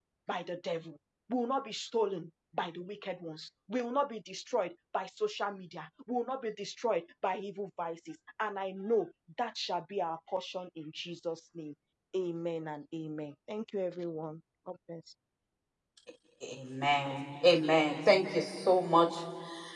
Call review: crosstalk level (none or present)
none